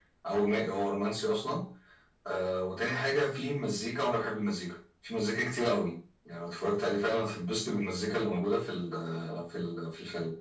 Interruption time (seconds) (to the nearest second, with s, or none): none